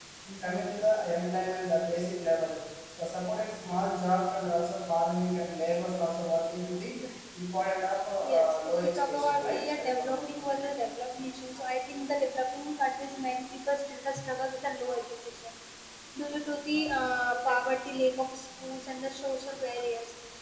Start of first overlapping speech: 8.2 s

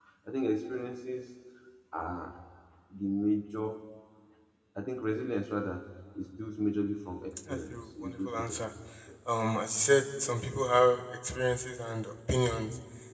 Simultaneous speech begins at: 7.5 s

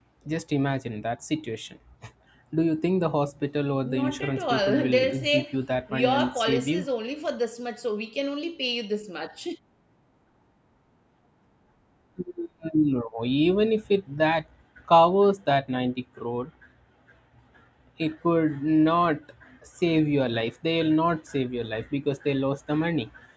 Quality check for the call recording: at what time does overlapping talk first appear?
3.8 s

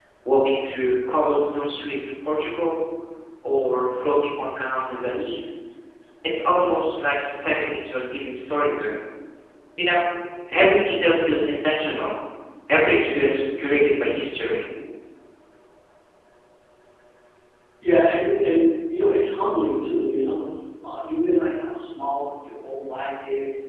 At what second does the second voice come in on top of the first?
none

